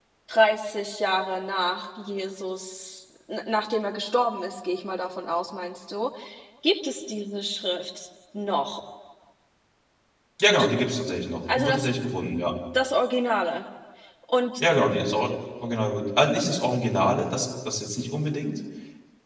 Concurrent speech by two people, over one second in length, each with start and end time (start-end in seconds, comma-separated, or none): none